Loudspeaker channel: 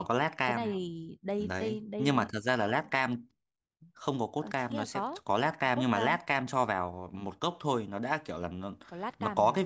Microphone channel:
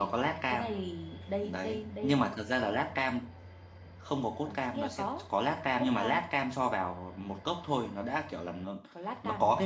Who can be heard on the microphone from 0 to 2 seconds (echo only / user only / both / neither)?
echo only